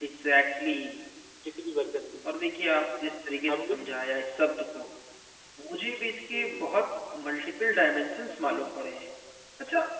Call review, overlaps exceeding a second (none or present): none